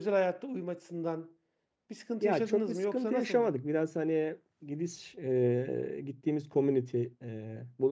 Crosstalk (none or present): present